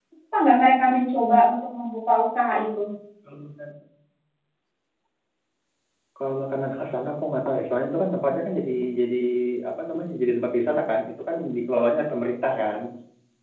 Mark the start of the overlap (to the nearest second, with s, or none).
none